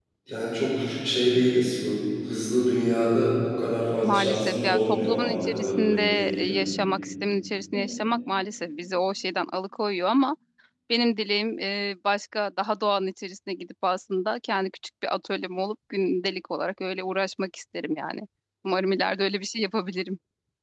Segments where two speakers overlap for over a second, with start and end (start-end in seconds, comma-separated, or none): 4.0-6.6